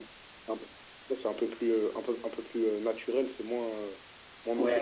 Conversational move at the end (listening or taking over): taking over